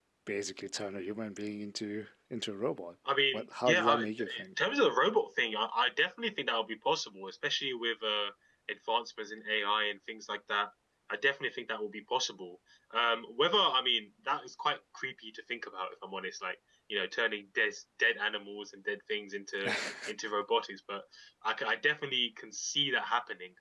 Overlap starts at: 3.3 s

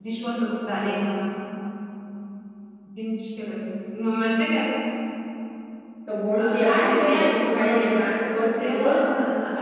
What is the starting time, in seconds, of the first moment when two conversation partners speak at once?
6.4 s

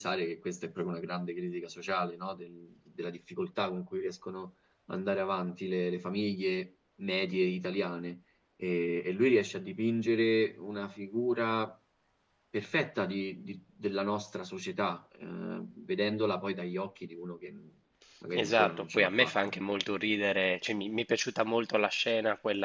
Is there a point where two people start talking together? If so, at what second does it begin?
18.3 s

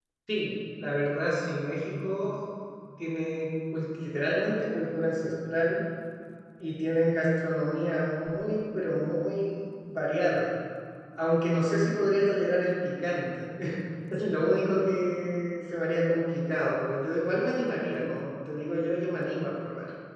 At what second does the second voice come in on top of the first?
none

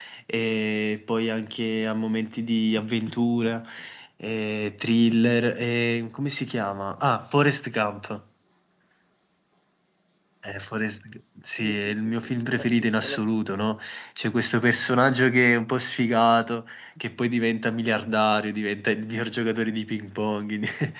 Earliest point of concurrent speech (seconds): 11.4 s

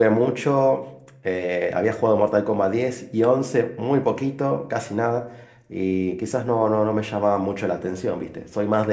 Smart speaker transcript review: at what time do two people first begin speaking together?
none

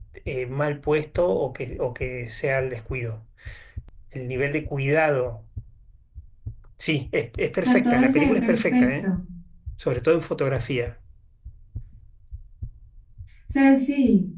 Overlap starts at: 7.6 s

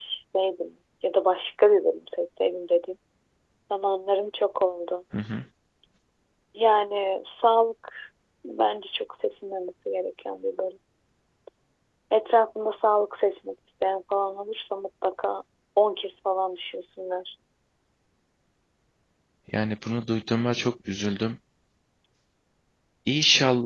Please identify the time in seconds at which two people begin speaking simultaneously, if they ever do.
none

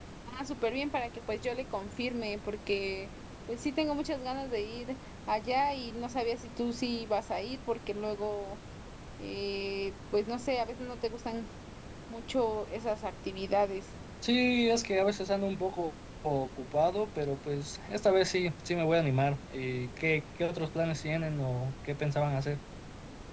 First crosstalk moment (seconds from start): none

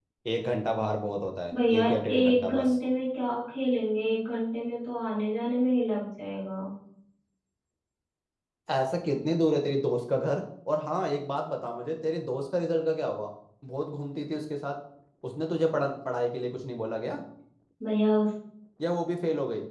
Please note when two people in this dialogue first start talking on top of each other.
1.5 s

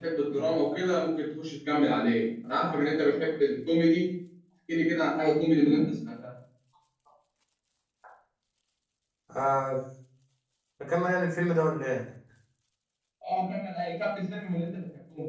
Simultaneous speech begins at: none

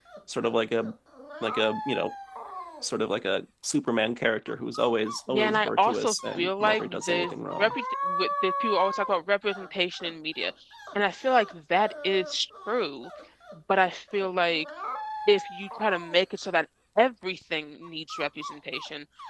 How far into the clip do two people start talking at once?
5.3 s

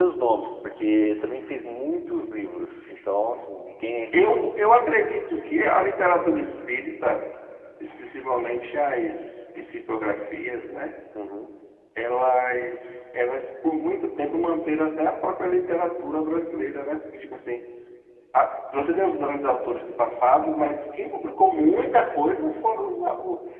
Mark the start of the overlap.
none

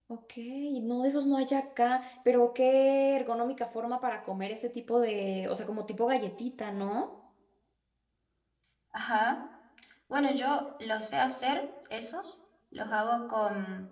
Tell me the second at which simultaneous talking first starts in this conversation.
none

